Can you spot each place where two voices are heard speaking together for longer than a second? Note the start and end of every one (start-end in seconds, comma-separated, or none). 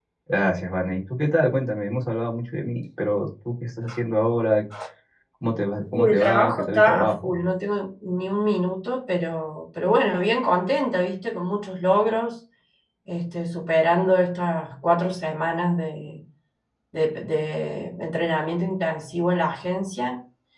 5.9-7.3